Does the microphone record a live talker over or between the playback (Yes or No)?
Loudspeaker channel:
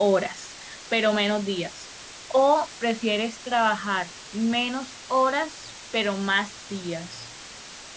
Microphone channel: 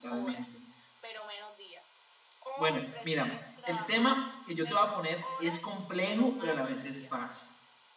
Yes